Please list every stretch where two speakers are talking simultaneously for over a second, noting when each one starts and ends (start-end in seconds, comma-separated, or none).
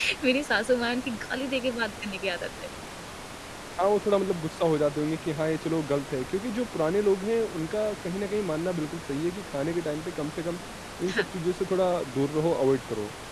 none